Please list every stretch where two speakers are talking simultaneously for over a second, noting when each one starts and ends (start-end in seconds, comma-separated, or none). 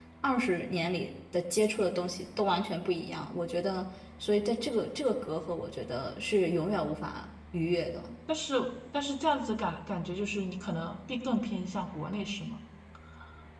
none